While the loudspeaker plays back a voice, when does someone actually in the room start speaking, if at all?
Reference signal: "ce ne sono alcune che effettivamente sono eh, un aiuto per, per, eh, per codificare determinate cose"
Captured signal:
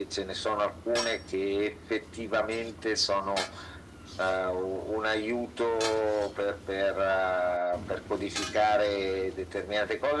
none

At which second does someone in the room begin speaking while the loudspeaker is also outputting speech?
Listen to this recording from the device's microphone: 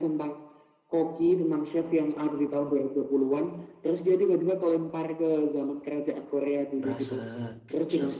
6.8 s

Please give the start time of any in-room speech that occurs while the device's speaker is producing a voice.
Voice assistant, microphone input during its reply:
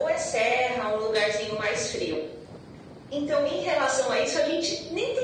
none

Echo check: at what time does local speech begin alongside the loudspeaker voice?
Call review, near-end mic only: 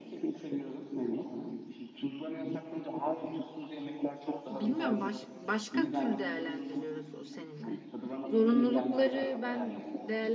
4.5 s

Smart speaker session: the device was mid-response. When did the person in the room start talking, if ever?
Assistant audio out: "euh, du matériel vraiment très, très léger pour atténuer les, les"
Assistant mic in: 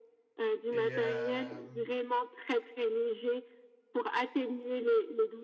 0.7 s

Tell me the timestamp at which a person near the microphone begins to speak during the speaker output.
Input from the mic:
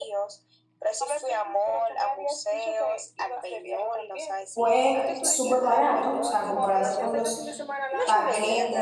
4.5 s

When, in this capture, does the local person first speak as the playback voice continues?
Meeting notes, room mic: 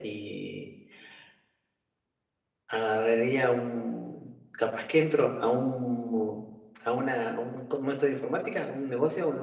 none

